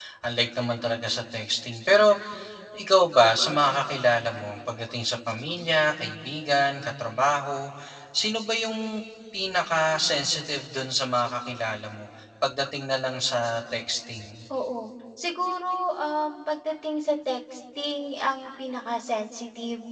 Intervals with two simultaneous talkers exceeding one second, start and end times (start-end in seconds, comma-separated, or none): none